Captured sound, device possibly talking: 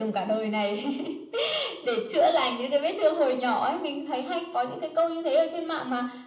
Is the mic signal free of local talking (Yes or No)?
Yes